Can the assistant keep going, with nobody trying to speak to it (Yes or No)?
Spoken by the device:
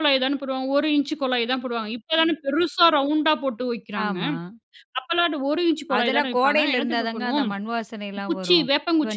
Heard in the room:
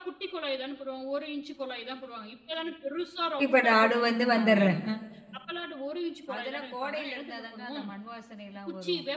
No